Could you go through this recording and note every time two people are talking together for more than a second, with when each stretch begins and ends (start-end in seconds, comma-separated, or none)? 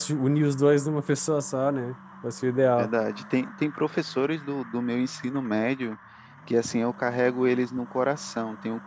none